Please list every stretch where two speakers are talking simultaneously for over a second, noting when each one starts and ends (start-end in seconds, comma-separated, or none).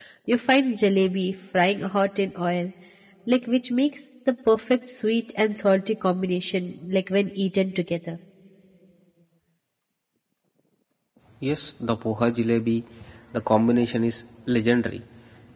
none